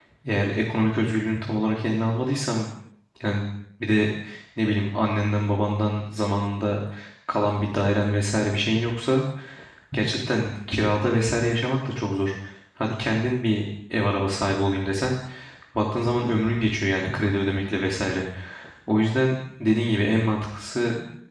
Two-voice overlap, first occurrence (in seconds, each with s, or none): none